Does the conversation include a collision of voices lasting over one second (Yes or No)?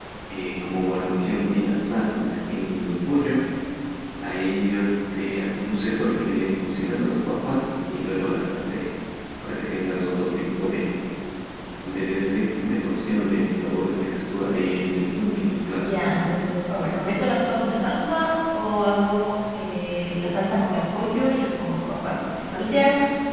No